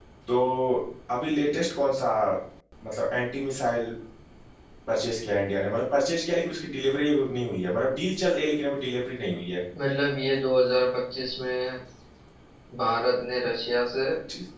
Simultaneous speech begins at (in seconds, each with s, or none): none